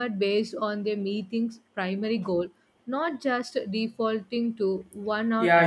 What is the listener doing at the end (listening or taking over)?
taking over